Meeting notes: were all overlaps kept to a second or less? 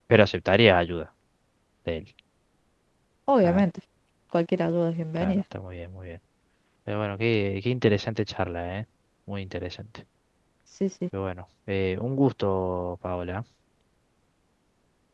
Yes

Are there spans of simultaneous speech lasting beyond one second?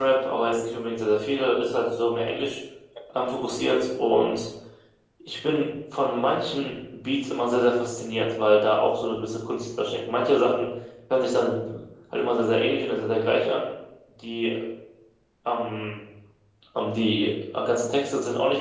No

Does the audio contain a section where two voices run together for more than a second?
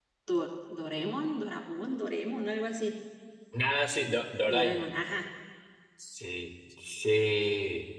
No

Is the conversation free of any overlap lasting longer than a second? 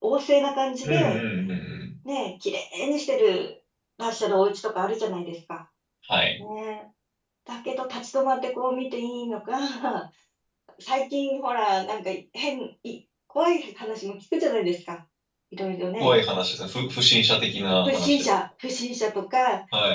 Yes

